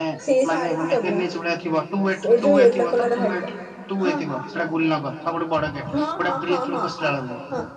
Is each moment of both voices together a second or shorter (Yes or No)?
No